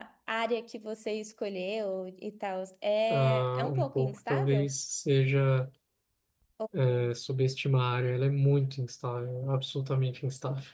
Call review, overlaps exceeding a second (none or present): present